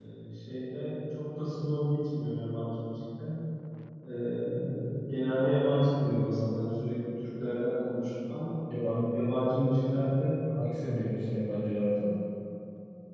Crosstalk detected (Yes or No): No